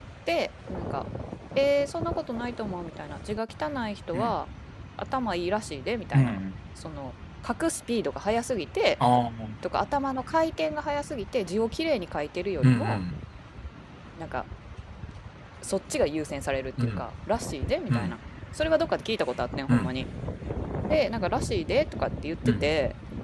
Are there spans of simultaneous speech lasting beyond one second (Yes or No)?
No